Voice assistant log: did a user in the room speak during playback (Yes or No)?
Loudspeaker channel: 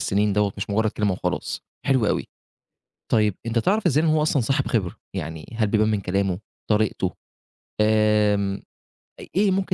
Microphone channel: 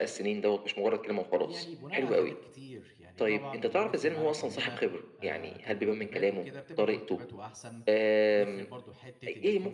Yes